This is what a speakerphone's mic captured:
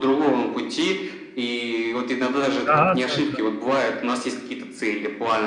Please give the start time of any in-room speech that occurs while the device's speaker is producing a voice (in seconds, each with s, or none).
2.5 s